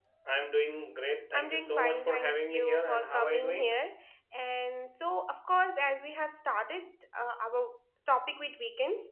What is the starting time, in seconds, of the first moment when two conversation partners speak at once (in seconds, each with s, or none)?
1.3 s